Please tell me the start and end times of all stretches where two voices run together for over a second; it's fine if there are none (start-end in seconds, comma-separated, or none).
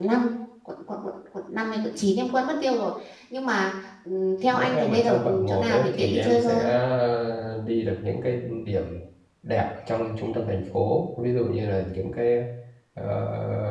4.5-6.7